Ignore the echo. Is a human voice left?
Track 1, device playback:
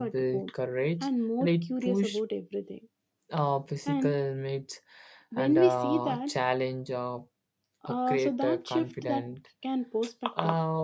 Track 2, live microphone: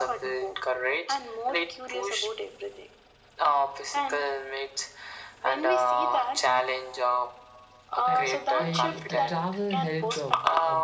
Yes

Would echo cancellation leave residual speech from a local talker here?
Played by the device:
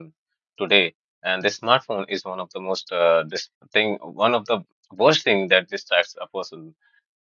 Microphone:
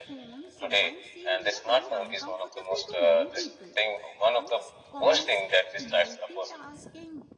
Yes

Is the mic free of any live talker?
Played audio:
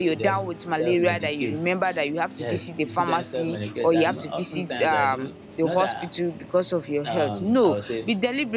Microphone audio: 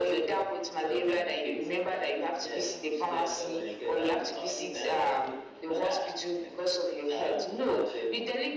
Yes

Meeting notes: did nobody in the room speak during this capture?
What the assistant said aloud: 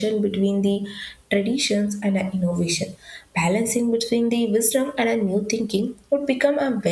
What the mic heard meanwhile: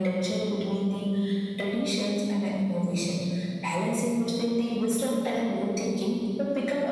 Yes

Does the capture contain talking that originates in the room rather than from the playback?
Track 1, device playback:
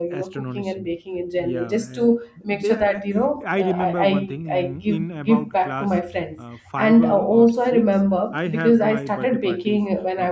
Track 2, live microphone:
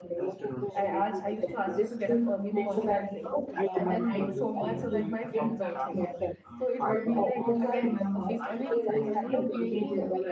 Yes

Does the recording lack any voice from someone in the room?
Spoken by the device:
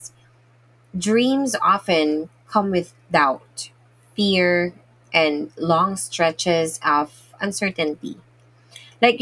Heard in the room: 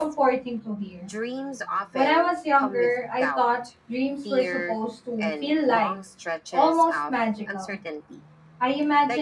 No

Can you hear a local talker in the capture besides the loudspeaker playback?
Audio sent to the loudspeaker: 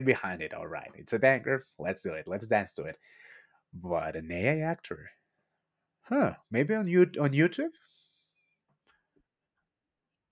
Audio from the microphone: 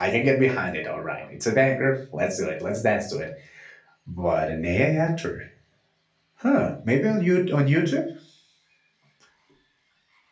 No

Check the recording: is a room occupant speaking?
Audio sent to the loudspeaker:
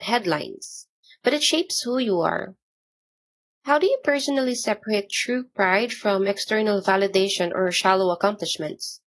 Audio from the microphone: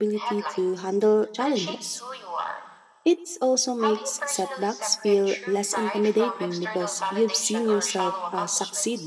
Yes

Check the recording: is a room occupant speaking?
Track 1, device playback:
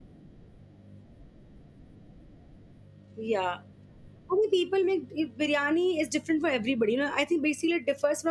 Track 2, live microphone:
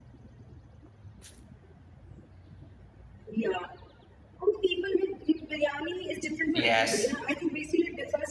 Yes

